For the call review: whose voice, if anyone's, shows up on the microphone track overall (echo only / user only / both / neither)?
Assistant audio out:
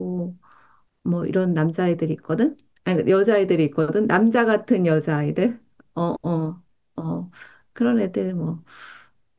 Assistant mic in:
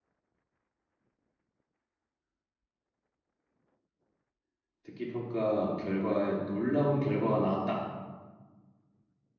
user only